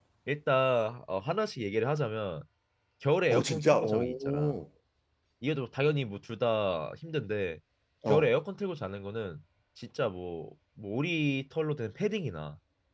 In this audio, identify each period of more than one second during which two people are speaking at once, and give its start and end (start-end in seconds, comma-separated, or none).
3.3-4.6